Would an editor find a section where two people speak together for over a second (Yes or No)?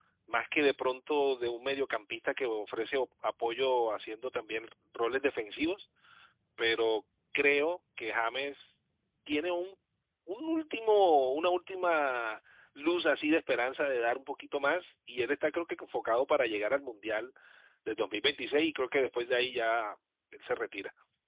No